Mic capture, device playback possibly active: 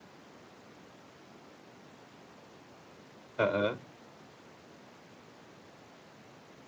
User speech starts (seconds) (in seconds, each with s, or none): 3.4 s